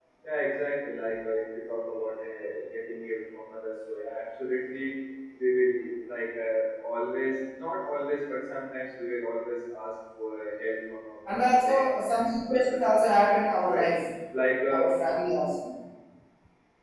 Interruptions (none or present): present